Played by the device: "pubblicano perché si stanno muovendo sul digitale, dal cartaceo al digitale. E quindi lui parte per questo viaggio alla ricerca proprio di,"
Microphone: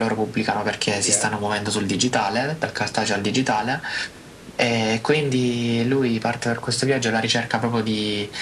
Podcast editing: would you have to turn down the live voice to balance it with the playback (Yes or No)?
No